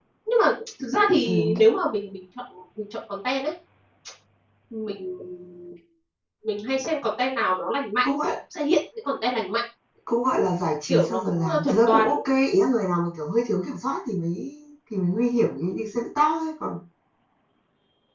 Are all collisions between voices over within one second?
No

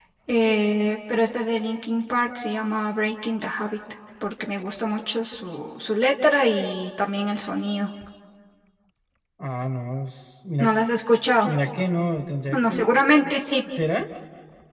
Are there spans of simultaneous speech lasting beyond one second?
No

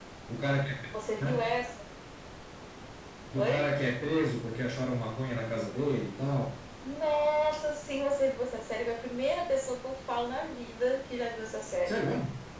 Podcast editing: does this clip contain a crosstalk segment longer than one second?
No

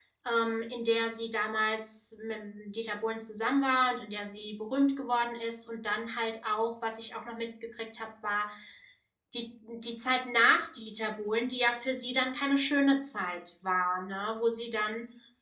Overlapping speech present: No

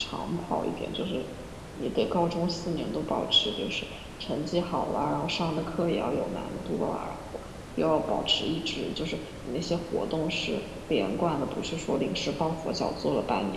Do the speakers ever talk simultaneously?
No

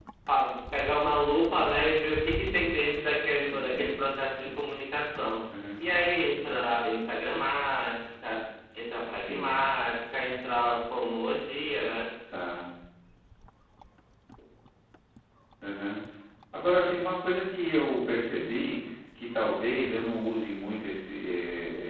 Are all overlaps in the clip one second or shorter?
Yes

